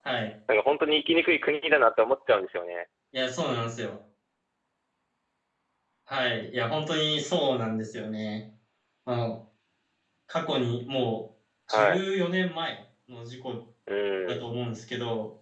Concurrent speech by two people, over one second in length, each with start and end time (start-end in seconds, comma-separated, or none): none